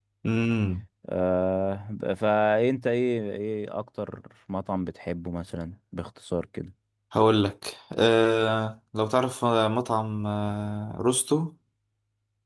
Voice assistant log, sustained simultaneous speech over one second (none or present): none